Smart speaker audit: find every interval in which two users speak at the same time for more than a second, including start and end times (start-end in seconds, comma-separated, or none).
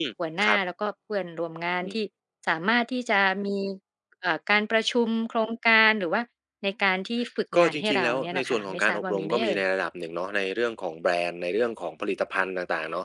7.6-9.6